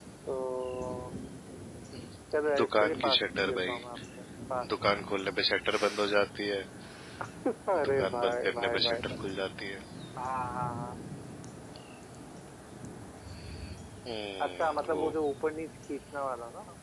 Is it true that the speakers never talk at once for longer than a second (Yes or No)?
No